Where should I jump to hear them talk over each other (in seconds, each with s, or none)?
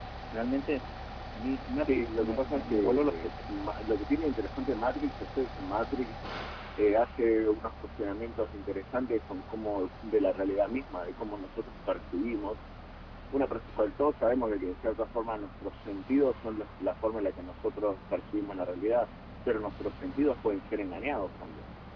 1.8 s